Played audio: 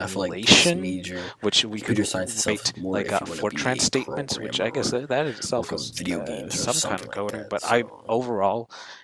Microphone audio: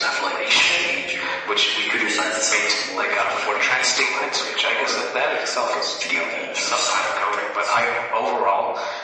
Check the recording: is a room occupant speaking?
No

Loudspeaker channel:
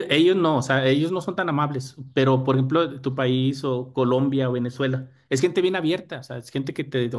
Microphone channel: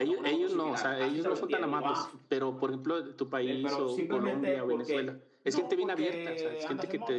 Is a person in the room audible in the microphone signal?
Yes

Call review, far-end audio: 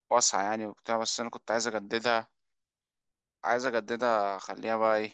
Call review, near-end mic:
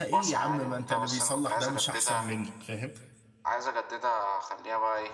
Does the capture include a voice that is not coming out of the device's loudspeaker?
Yes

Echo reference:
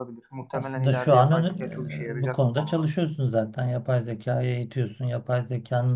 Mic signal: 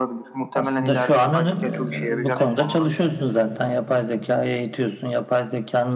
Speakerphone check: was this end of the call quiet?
No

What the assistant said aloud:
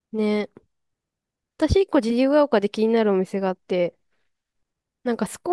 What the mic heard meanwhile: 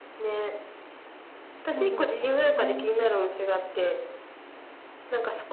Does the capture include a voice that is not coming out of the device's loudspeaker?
Yes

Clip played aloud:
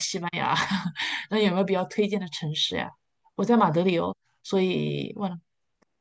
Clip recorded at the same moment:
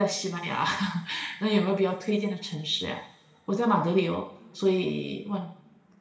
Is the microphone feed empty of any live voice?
Yes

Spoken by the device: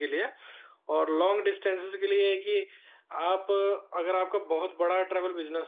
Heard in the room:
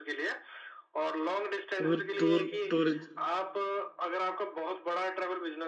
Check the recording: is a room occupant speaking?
Yes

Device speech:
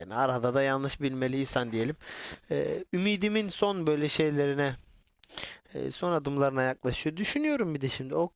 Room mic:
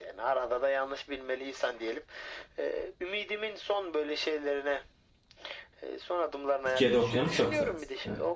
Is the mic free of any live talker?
No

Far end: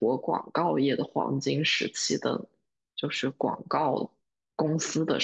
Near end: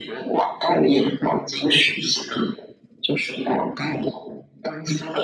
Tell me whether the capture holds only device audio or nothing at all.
Yes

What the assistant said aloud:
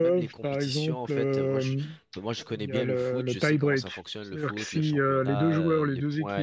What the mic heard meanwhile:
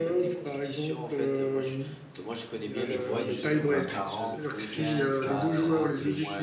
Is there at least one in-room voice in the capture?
Yes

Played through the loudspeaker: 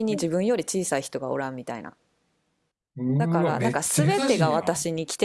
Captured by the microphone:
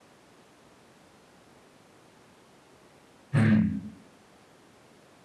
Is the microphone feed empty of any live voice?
No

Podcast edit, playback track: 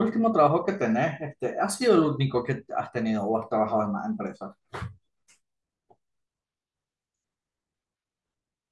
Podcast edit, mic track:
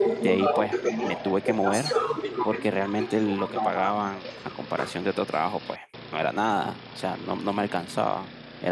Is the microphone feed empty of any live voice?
No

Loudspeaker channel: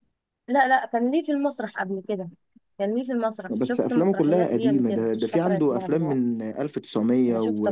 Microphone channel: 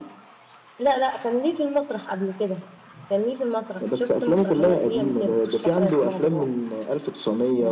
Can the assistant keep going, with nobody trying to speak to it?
Yes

